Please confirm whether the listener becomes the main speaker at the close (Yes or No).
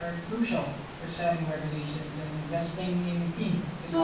Yes